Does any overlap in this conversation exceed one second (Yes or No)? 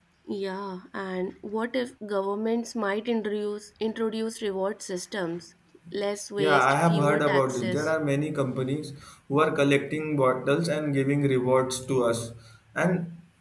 Yes